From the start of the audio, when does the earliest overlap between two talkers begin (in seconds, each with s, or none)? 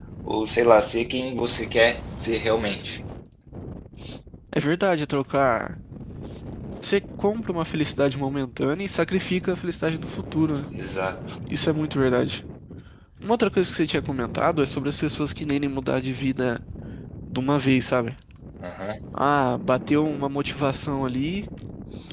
none